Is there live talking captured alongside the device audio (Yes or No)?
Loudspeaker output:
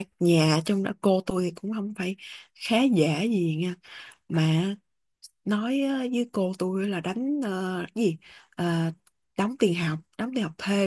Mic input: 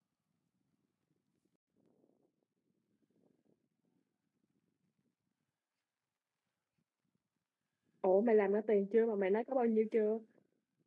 Yes